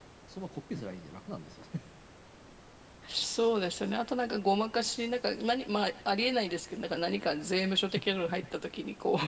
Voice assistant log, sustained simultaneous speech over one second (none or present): none